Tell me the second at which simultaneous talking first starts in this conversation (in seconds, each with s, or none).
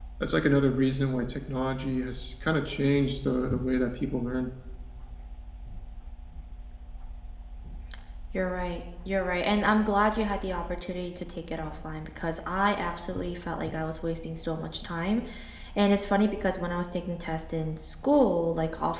none